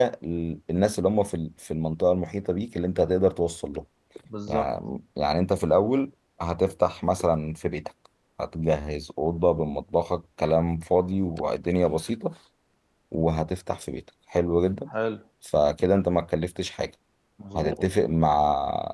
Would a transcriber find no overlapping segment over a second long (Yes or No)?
Yes